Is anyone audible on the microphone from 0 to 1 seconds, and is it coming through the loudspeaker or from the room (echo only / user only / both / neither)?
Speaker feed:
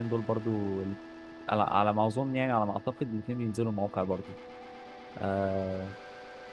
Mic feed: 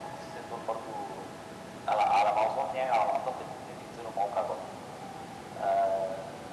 echo only